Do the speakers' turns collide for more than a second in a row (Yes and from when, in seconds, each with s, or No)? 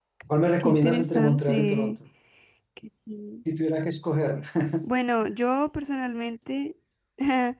Yes, from 0.6 s